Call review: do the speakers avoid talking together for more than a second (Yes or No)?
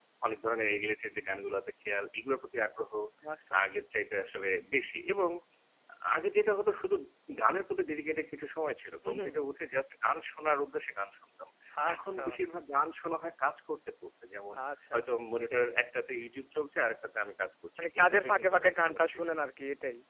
No